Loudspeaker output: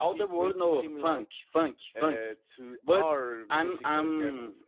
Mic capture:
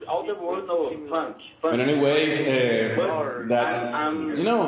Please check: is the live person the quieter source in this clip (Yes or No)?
No